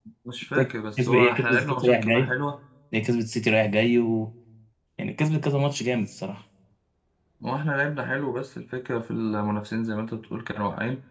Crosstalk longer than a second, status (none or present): present